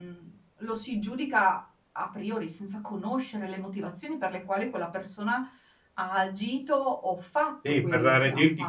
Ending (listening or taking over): taking over